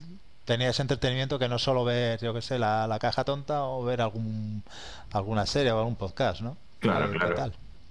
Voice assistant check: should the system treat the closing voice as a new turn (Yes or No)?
Yes